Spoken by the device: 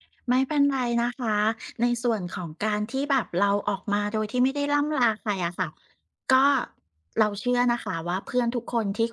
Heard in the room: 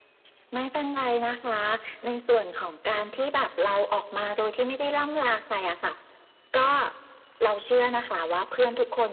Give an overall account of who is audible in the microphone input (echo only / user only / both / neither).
echo only